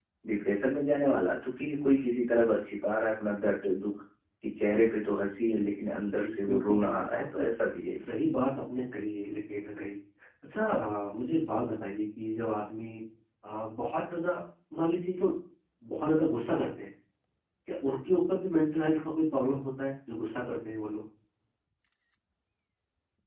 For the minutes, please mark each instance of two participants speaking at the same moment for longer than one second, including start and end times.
6.2-7.4

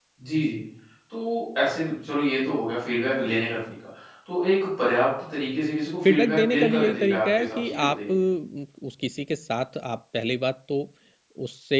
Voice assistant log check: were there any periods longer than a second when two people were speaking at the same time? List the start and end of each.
6.0-8.2

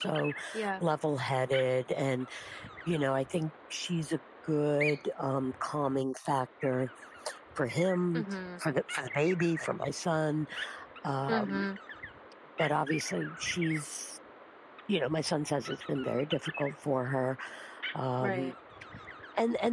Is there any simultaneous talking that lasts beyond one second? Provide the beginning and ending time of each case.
none

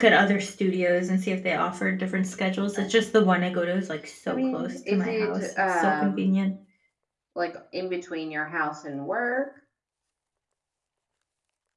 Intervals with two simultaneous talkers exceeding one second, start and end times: 4.3-6.2

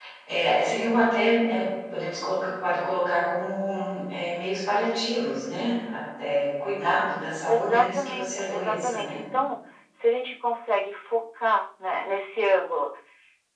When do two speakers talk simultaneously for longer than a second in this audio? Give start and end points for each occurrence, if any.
7.5-9.1

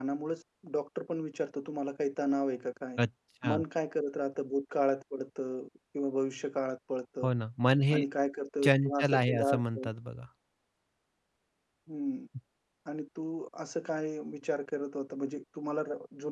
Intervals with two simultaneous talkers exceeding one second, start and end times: 8.7-9.9

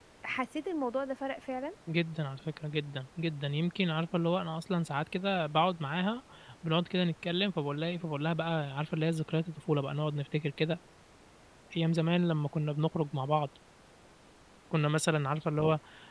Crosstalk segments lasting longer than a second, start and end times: none

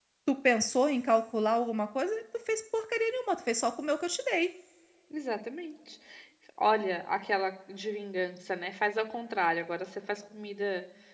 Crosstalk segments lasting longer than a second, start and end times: none

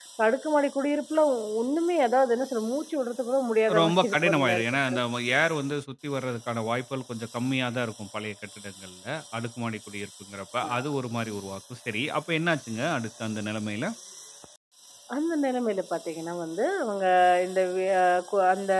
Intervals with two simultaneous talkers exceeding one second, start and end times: 3.8-5.0

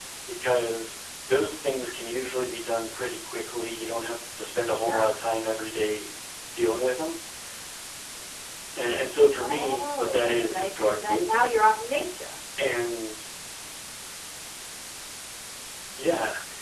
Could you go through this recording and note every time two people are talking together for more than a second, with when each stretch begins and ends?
9.4-11.3

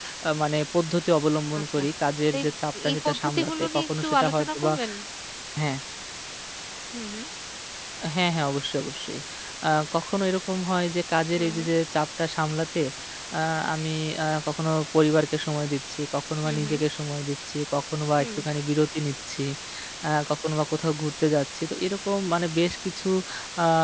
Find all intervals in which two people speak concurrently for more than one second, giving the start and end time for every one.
2.9-4.7

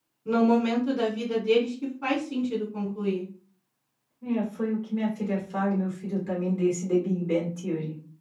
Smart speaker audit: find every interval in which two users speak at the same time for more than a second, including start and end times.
none

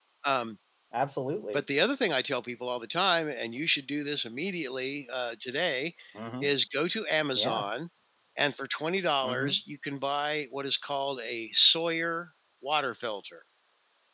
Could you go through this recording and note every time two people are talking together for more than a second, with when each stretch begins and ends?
none

